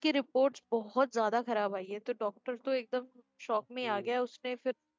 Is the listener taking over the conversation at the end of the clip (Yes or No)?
No